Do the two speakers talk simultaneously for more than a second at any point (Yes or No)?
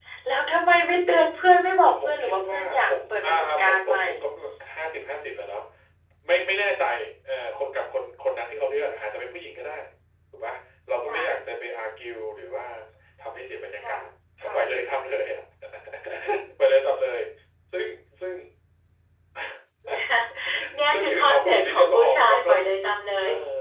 Yes